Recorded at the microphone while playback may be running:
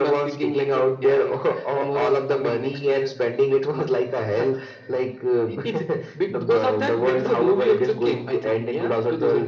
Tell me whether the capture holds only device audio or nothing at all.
Yes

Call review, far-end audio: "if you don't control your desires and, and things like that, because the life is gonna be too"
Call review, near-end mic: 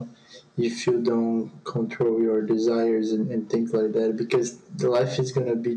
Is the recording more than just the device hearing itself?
No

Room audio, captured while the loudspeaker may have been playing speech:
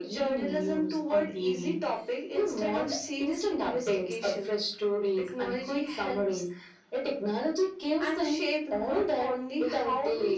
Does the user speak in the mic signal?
No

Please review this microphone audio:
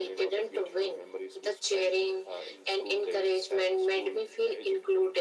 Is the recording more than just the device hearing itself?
No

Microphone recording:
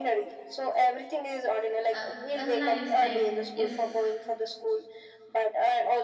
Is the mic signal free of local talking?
No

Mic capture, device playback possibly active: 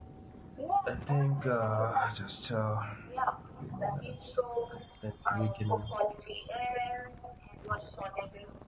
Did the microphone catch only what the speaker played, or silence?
No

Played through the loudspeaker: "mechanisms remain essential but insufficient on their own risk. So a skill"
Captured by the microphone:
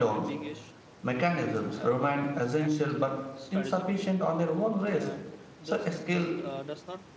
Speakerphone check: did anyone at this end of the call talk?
Yes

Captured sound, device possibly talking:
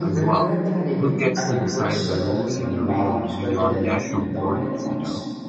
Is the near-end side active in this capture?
Yes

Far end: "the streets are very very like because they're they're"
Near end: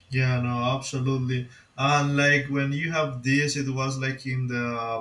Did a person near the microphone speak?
Yes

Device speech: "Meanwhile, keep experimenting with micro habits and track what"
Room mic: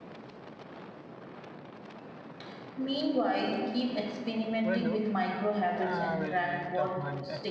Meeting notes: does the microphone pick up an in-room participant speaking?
Yes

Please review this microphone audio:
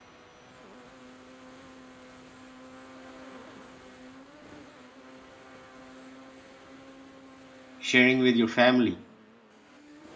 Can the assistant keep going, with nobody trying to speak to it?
No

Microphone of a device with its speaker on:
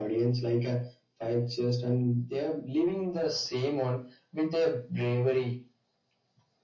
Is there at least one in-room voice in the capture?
No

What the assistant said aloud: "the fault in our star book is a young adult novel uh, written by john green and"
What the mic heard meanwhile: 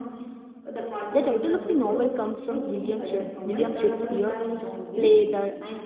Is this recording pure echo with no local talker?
No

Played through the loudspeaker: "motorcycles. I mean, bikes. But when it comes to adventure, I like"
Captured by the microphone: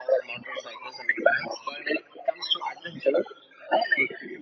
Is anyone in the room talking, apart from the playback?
No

